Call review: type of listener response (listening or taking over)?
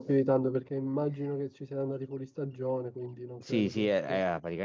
taking over